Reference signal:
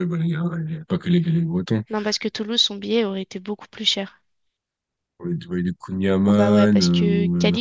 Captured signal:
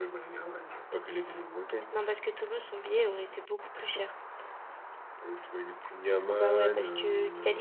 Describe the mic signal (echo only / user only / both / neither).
echo only